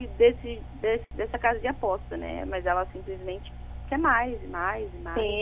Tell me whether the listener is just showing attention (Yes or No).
No